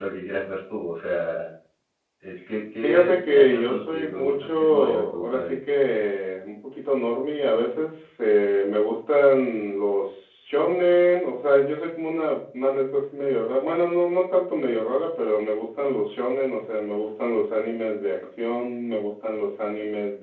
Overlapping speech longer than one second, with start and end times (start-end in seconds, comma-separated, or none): 2.8-5.6